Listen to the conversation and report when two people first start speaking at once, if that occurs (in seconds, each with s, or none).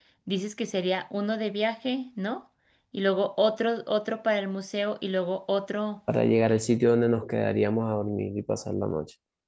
none